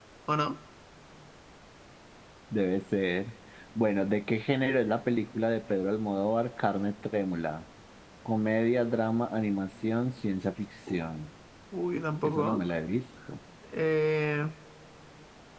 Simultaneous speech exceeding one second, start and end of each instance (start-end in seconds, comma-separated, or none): none